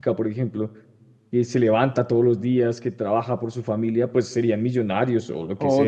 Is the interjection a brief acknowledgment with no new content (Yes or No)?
No